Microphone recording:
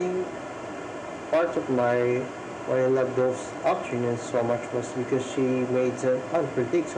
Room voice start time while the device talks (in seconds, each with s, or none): none